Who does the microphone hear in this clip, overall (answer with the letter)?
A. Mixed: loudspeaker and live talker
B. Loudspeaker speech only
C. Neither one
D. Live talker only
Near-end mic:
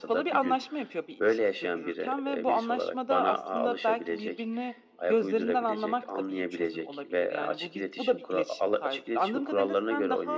B